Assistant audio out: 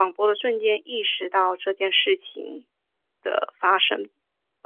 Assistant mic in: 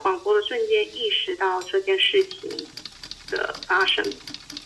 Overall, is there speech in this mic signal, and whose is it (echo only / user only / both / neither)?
echo only